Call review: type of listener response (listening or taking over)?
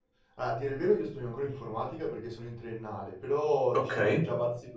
listening